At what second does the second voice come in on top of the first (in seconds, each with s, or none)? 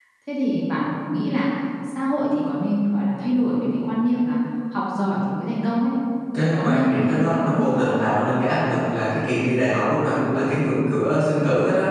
6.3 s